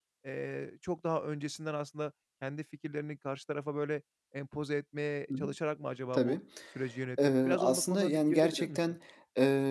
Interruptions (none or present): present